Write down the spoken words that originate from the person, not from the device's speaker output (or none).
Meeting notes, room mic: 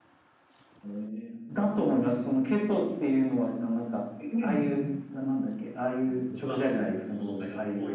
none